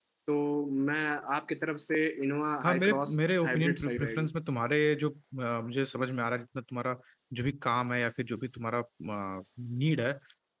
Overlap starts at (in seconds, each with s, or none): 2.6 s